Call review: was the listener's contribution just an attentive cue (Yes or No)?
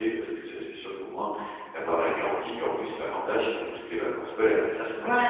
No